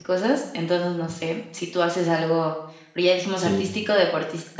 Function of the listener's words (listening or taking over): listening